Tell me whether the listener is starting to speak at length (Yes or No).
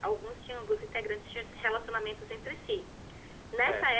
No